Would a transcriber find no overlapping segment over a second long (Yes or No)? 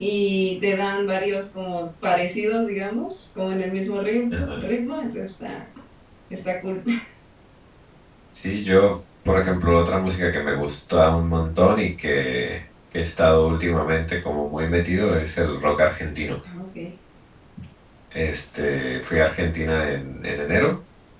Yes